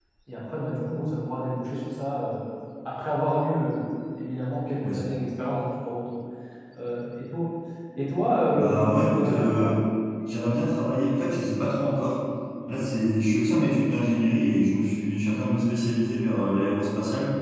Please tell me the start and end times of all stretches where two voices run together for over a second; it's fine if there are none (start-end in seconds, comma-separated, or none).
8.5-9.8